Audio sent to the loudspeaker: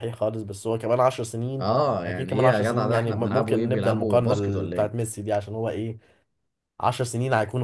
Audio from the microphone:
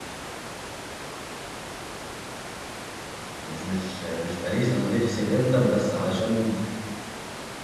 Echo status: none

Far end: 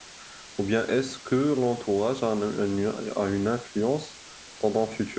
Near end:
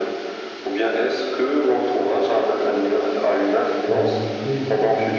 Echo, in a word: present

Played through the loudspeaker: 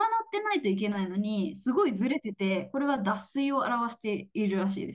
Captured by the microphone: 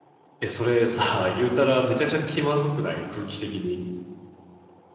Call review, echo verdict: none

